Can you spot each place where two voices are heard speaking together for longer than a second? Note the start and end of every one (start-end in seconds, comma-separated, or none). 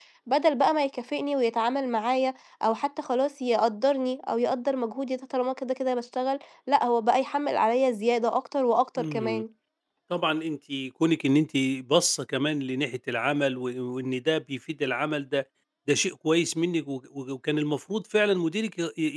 none